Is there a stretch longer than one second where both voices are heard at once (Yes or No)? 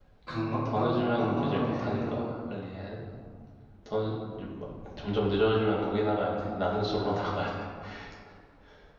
Yes